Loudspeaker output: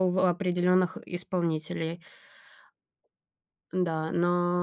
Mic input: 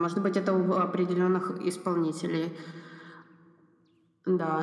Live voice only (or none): none